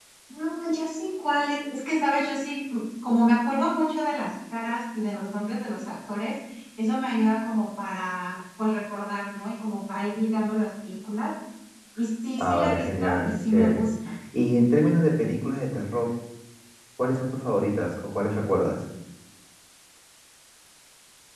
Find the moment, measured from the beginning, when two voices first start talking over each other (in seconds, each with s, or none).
12.4 s